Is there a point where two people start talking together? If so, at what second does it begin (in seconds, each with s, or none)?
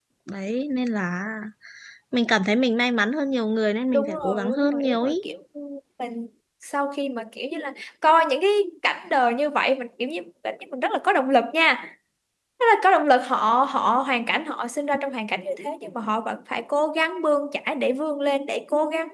3.9 s